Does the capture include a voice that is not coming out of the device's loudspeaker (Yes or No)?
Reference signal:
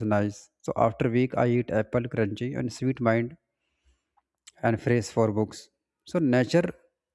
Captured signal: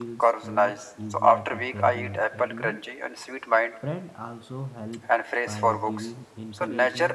Yes